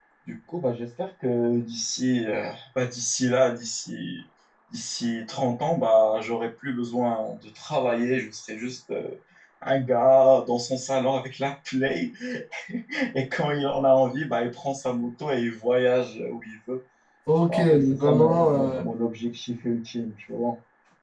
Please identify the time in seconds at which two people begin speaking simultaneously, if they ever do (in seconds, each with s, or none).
17.5 s